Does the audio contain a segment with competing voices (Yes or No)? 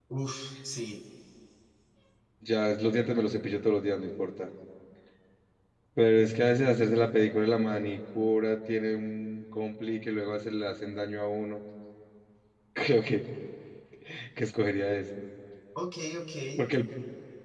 No